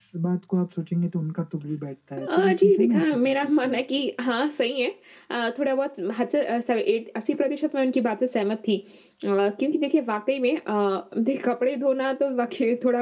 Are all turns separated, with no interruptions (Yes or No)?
No